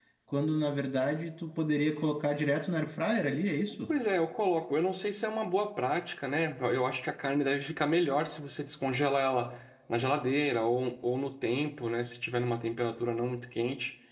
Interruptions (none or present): none